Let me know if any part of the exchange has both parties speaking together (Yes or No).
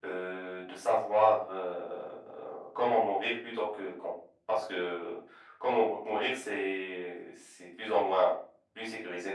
No